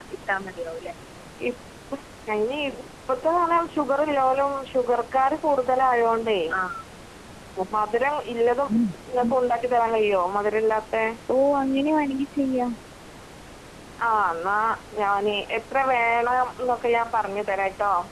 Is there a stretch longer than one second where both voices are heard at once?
No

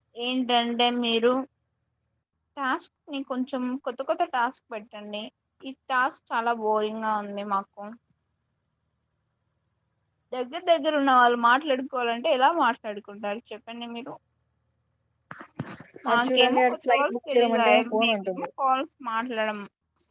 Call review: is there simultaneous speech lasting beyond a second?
Yes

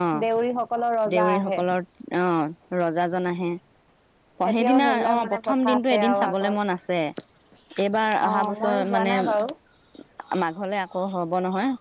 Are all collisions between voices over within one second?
No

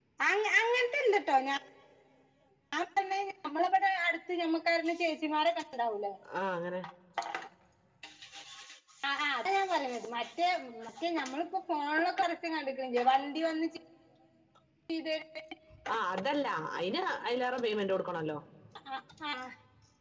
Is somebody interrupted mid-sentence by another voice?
No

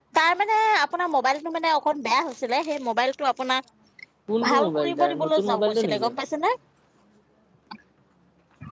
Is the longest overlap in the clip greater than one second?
Yes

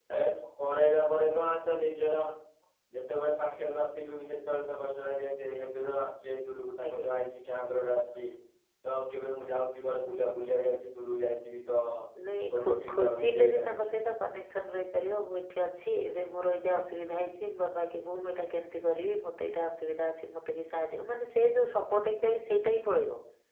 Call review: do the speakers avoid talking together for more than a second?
No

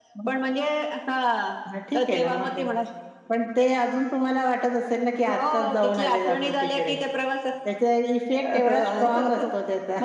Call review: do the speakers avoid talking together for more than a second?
No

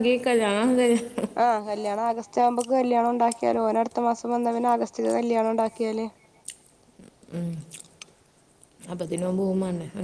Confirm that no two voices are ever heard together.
Yes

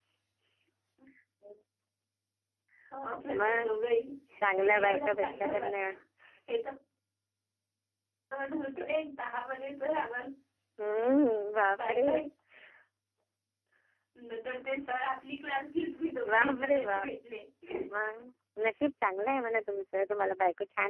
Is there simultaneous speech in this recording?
Yes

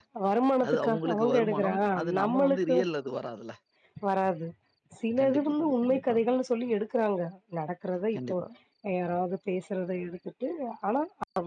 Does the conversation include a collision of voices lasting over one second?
Yes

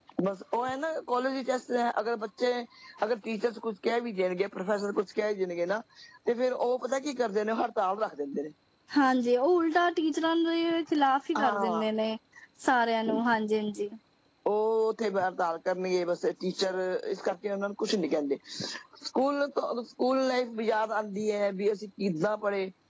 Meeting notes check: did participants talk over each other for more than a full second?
No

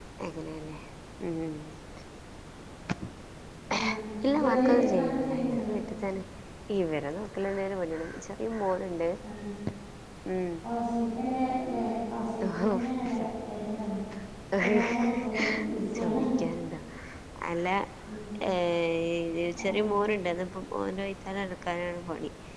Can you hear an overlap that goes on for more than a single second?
Yes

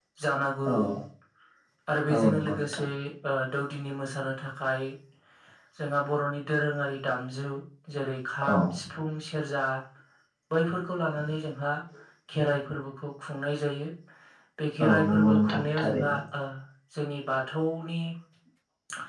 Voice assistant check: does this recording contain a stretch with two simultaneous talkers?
Yes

